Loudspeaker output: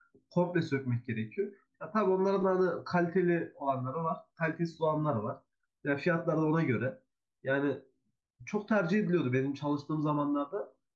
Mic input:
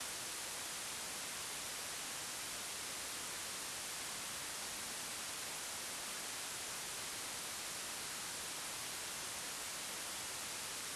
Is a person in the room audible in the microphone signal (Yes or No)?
No